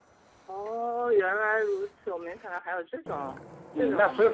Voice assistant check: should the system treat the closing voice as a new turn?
Yes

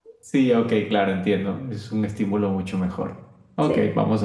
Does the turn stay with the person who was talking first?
Yes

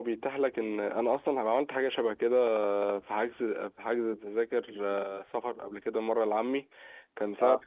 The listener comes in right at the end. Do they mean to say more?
No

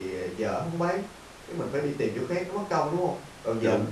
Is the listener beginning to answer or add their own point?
No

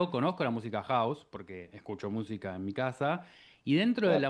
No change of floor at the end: Yes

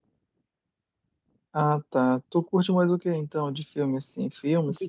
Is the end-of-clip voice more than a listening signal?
Yes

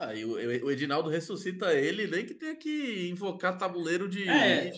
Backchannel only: No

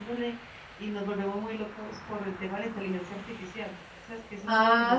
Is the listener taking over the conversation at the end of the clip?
Yes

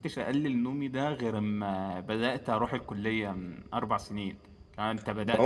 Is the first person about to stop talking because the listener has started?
Yes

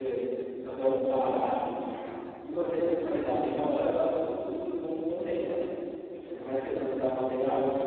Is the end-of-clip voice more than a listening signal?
No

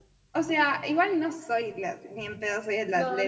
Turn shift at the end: Yes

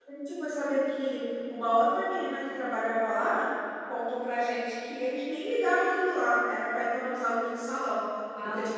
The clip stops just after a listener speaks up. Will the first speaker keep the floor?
Yes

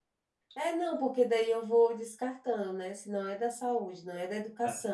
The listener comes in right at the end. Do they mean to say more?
No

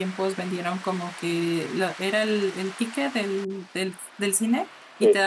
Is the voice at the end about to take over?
No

